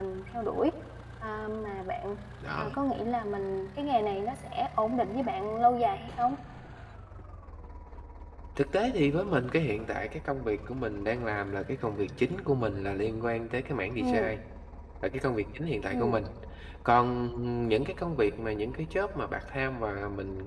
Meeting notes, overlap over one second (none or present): none